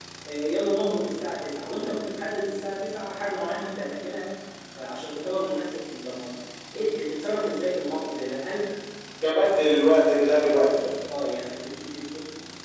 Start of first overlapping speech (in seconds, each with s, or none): none